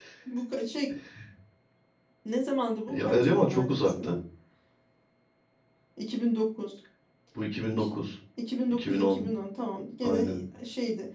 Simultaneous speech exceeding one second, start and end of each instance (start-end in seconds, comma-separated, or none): 2.9-4.2